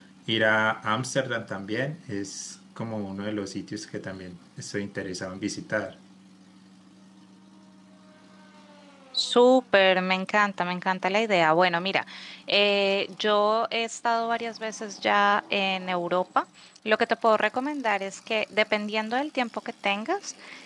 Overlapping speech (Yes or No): No